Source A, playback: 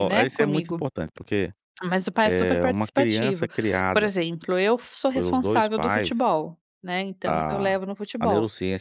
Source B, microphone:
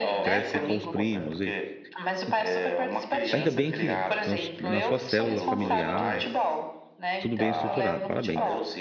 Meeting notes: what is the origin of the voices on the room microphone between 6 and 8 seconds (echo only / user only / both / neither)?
both